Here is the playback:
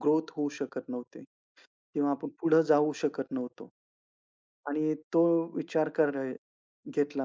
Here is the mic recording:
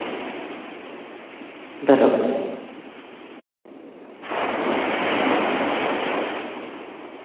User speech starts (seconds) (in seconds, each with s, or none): 1.8 s